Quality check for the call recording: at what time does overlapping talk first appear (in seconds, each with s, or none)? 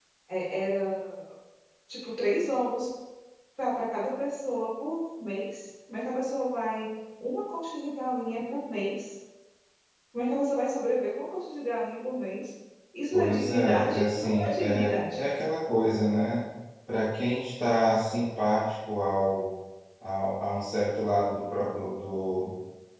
13.1 s